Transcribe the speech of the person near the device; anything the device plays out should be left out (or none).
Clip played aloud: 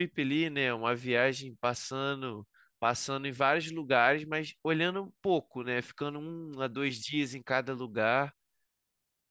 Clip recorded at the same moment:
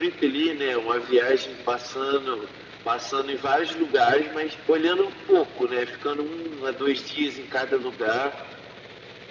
none